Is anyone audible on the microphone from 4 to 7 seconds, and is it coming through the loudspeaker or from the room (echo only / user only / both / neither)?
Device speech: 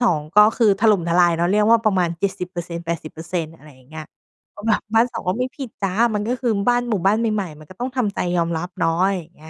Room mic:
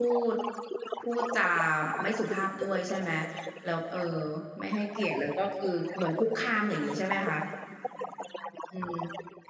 both